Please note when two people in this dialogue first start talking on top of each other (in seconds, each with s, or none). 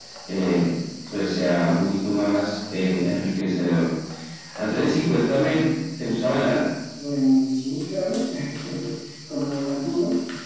none